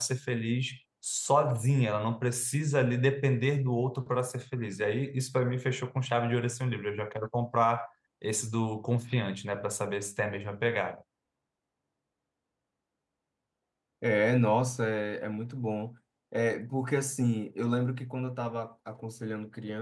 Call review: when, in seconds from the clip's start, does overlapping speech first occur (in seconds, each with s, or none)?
none